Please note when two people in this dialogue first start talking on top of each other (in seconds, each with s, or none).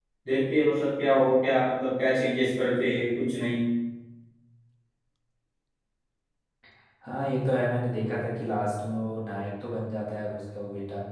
none